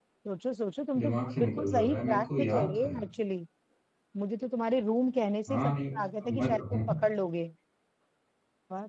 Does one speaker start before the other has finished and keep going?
Yes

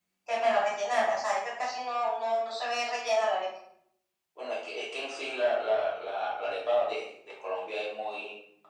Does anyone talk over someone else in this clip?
No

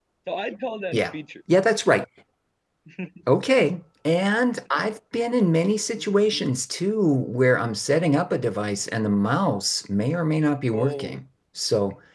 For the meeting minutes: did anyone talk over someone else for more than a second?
No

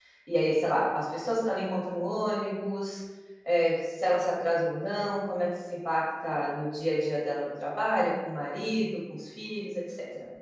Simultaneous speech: No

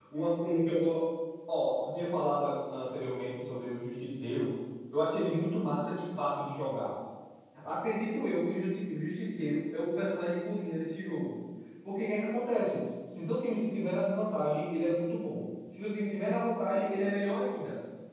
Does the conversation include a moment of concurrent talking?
No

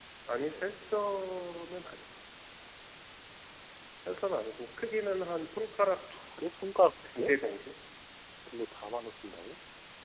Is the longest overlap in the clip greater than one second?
No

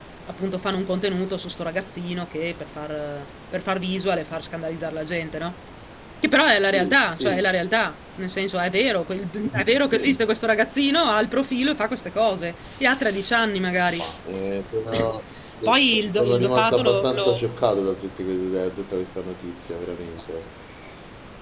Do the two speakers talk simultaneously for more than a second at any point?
Yes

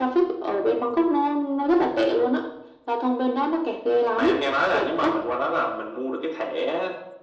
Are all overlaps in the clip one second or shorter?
Yes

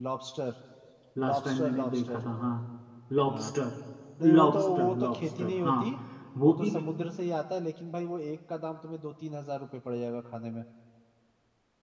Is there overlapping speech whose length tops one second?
Yes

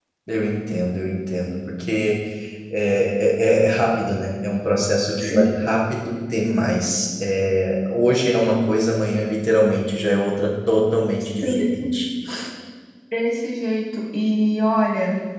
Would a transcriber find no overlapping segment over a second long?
Yes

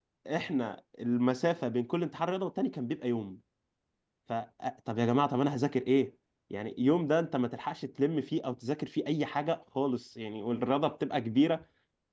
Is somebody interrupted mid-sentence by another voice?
No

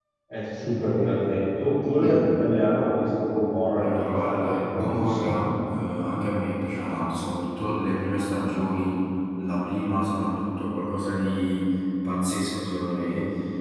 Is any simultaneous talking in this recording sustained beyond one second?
Yes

